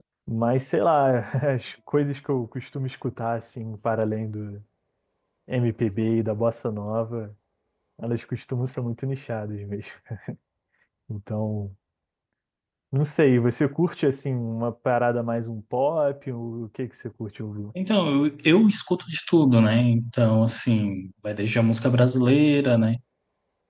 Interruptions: none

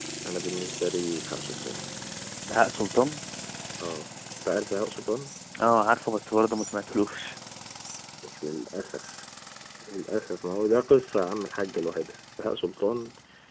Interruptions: none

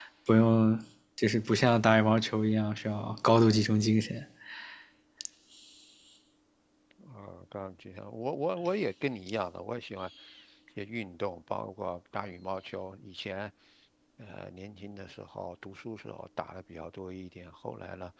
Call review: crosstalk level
none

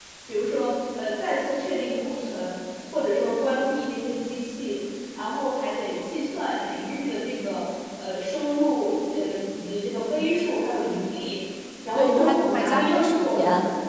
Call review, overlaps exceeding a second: present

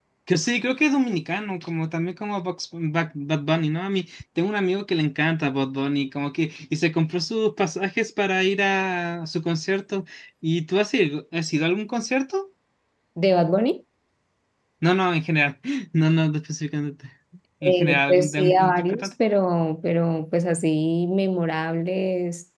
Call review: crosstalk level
present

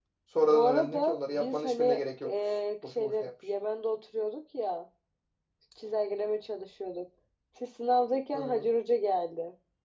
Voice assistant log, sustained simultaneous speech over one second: present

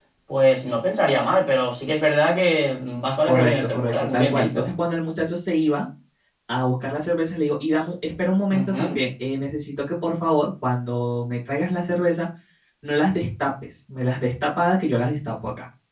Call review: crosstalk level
present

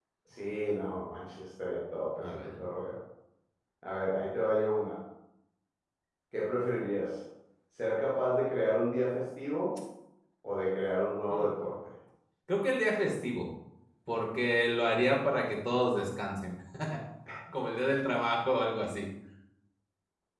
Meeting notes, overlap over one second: none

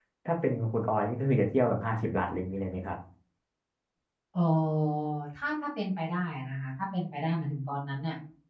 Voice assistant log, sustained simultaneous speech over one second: none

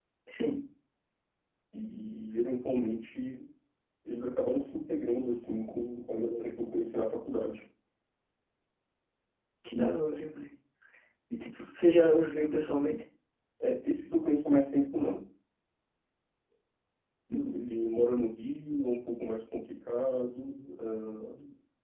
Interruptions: none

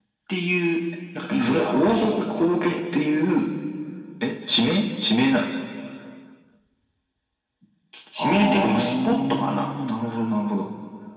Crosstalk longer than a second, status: present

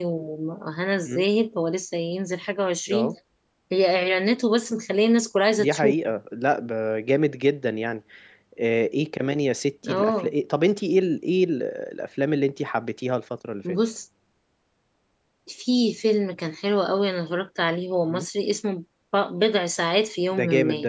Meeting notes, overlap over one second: none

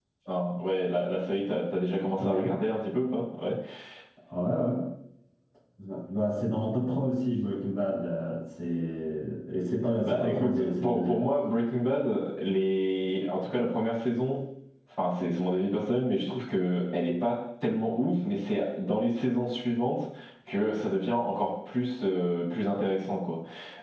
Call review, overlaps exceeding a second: present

